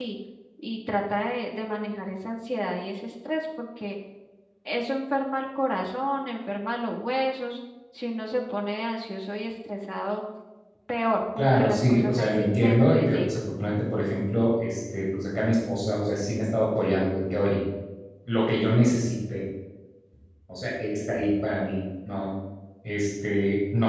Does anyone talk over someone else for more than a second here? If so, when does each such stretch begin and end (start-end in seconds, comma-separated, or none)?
11.4-13.4